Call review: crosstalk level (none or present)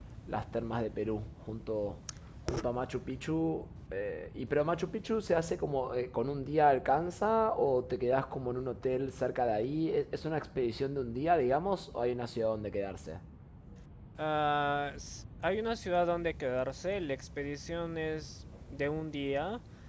none